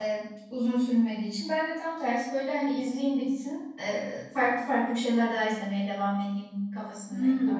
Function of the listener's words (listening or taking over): taking over